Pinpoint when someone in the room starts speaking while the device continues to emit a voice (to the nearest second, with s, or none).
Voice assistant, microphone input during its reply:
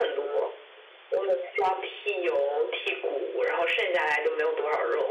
none